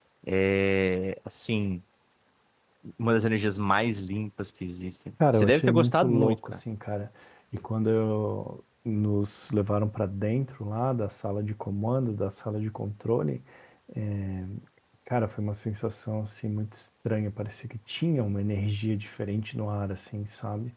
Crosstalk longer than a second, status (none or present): present